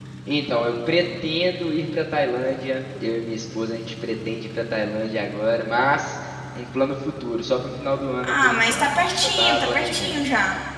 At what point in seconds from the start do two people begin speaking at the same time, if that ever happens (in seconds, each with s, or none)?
8.2 s